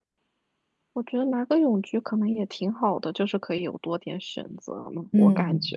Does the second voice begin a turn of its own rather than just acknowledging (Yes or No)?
Yes